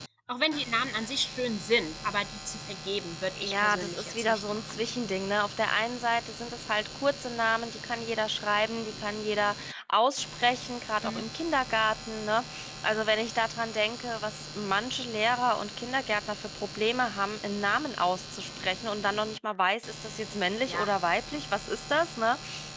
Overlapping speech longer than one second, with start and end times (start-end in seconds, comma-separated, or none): 3.4-4.8